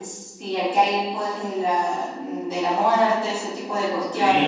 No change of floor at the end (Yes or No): No